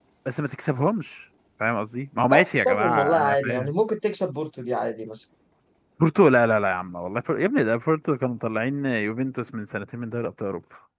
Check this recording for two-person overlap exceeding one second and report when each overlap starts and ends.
2.3-3.7

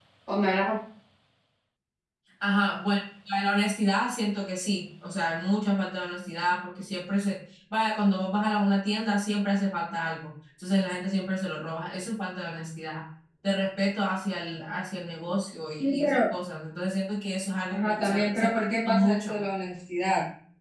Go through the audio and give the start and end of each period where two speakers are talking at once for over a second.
17.7-19.4

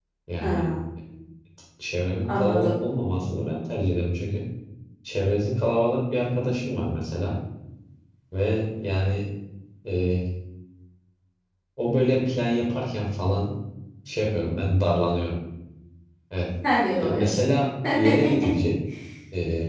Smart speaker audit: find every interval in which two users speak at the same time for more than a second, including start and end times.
none

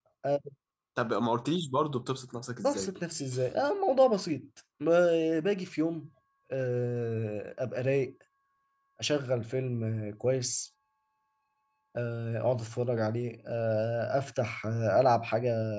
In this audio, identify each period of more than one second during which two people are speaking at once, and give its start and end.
none

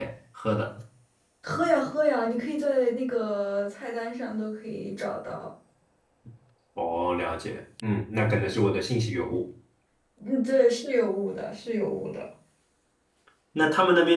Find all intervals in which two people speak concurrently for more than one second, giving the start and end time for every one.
none

